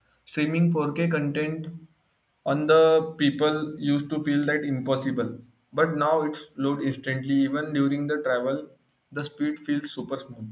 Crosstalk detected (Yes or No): No